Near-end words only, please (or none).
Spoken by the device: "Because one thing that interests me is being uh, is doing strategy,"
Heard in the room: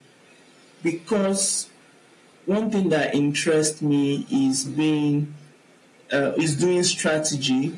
none